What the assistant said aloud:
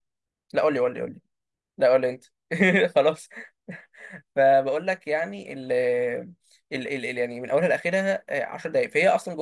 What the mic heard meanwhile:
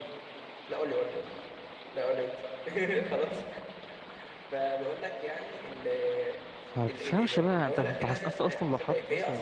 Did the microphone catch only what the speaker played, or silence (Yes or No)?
No